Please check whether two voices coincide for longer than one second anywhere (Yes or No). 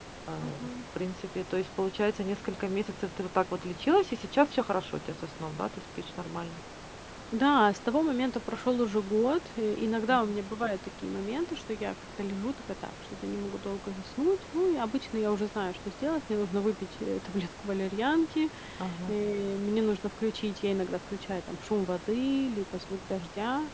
No